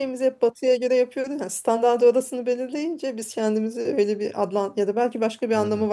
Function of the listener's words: listening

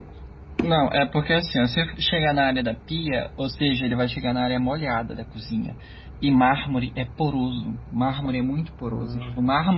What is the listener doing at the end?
listening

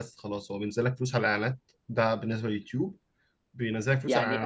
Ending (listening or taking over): taking over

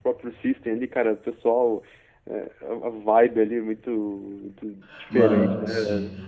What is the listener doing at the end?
taking over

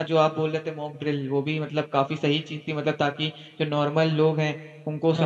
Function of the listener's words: listening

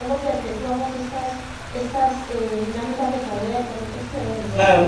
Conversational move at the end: taking over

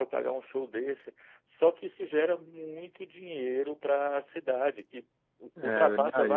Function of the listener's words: listening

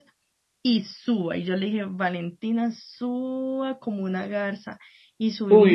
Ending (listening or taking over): taking over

